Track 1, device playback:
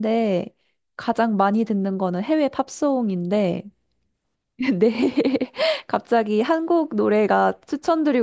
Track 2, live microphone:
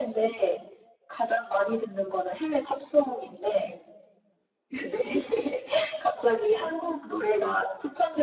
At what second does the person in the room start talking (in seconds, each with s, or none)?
none